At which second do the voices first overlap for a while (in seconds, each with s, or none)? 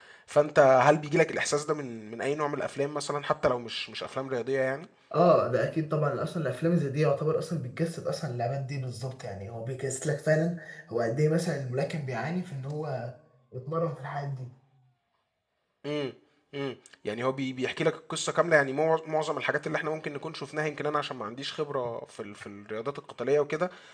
none